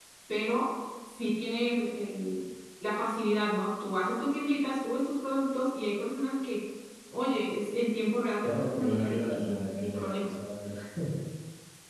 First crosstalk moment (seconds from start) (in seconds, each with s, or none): 8.4 s